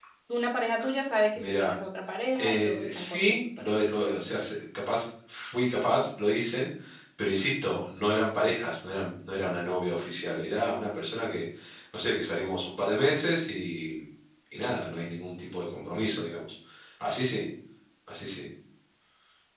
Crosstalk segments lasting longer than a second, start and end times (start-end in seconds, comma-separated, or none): 2.4-3.7